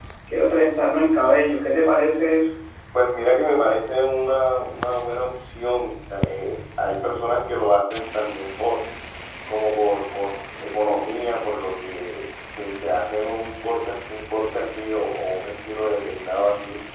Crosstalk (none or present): none